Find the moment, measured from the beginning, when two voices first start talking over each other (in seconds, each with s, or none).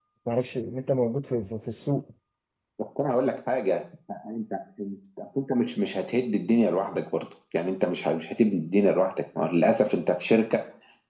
none